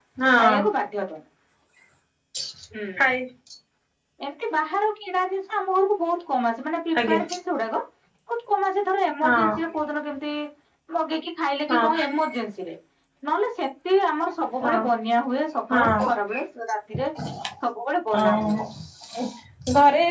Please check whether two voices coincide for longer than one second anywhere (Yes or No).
No